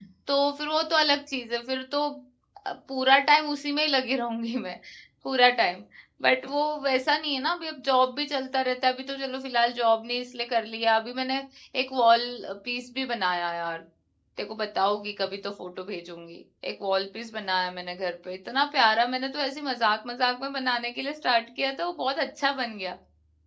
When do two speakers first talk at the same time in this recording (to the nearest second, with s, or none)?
none